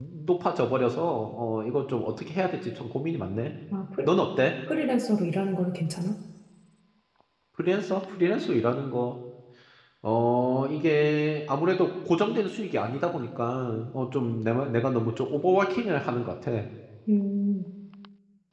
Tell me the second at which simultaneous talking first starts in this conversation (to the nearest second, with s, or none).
none